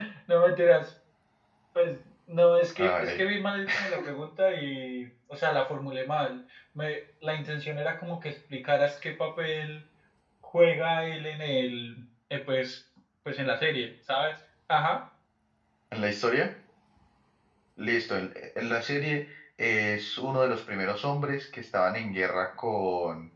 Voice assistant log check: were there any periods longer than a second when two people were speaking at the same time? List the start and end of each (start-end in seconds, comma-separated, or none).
none